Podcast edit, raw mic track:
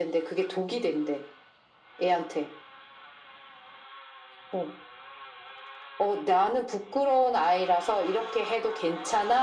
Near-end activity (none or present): none